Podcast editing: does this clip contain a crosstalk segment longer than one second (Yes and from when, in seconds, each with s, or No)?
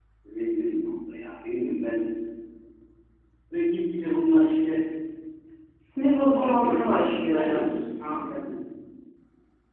Yes, from 6.3 s